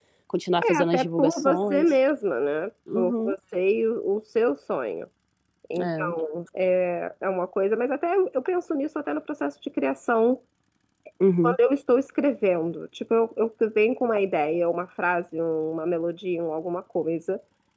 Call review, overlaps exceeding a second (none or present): present